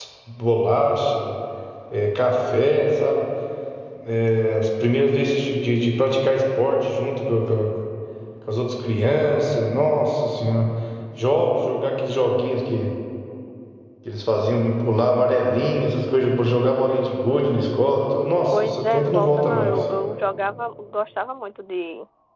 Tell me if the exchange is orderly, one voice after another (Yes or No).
No